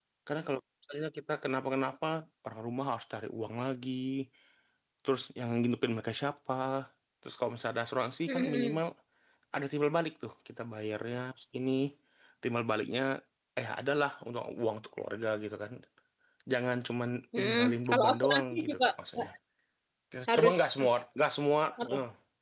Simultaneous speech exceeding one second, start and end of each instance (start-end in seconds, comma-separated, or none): 17.4-18.9